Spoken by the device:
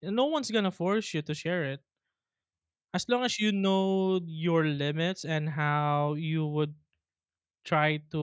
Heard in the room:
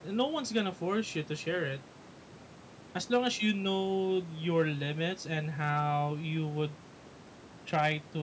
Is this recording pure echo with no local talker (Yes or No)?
Yes